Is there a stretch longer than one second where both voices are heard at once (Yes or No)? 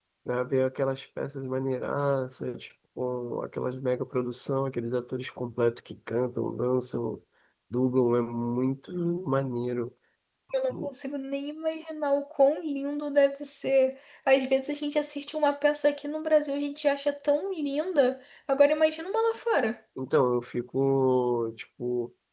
No